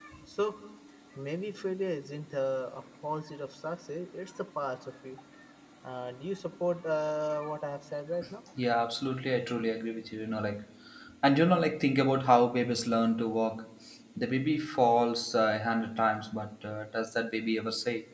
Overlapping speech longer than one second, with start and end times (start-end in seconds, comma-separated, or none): none